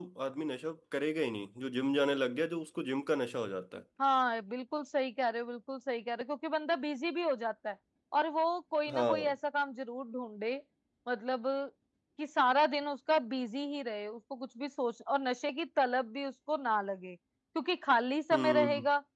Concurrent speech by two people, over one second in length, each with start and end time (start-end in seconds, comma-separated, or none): none